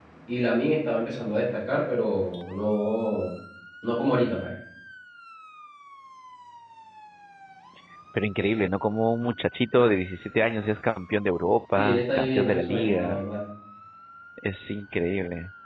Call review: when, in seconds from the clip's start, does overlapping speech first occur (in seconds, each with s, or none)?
11.8 s